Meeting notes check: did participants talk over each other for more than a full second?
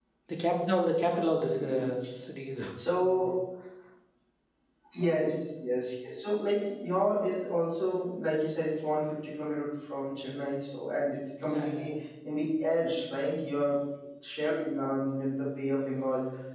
No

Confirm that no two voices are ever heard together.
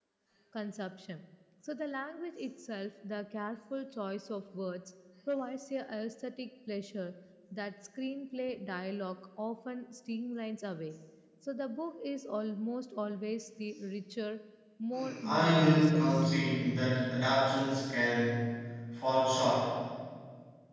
No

